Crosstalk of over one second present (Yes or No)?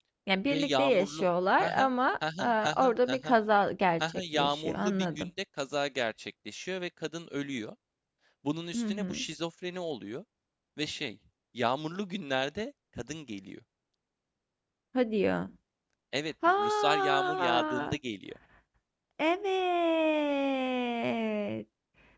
Yes